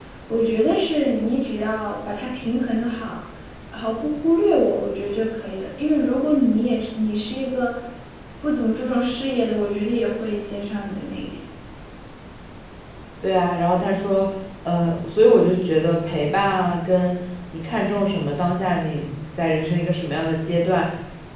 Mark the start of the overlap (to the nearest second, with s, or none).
none